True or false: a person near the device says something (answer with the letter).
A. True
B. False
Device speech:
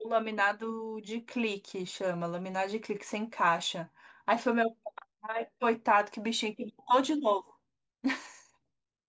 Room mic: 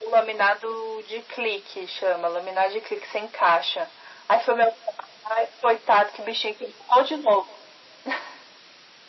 B